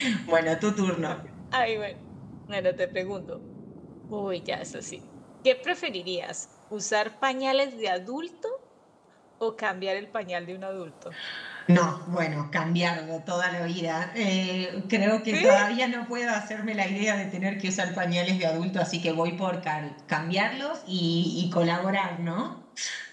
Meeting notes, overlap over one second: none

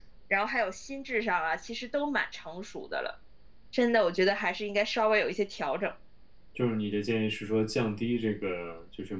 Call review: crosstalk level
none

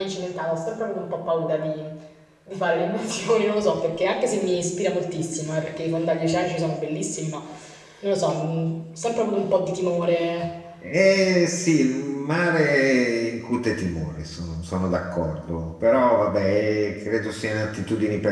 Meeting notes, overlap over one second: none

